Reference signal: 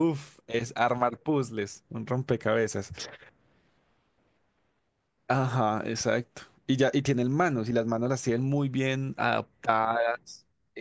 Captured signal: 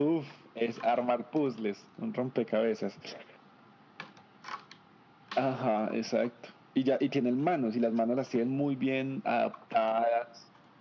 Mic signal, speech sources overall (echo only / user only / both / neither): echo only